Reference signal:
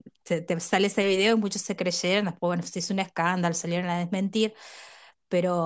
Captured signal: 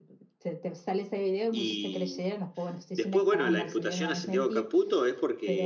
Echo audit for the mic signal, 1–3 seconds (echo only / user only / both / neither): both